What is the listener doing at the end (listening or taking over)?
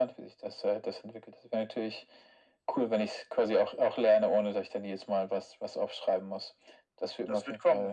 taking over